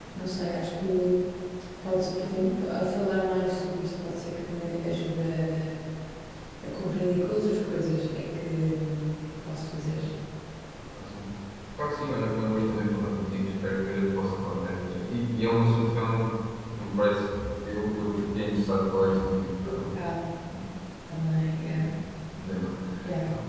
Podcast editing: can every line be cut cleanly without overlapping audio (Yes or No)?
Yes